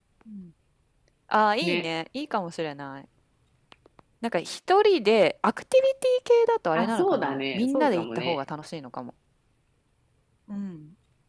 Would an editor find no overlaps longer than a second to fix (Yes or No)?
No